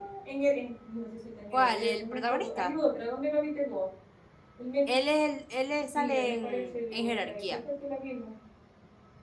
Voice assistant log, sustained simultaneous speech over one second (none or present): present